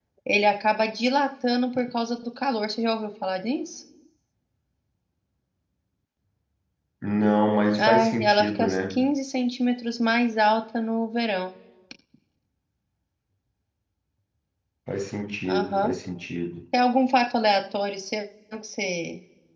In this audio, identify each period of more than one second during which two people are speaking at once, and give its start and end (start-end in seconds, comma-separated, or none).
7.8-9.1